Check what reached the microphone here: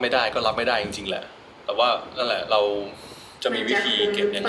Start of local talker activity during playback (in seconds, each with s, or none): 3.5 s